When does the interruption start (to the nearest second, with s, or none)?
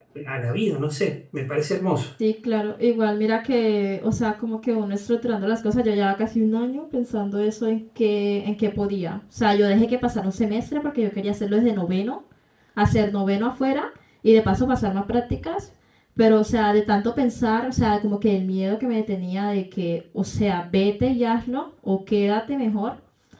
none